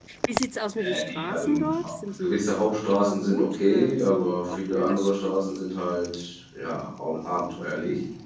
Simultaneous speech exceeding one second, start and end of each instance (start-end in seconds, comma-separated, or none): 0.7-2.5, 2.9-5.3